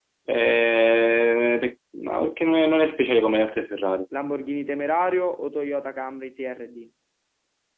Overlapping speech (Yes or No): No